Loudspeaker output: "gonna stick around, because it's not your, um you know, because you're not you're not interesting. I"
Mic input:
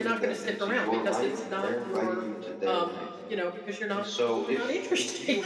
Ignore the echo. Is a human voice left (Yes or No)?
Yes